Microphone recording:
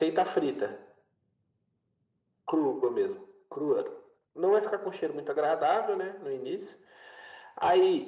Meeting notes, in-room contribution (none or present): none